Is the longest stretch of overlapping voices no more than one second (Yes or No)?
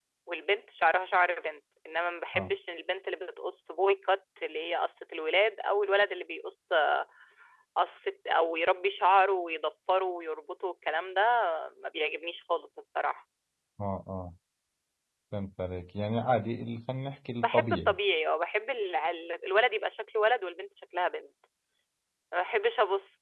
Yes